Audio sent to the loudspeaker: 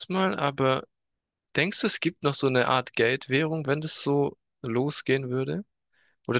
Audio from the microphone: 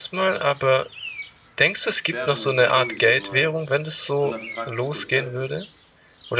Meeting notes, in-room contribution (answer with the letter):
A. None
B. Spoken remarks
B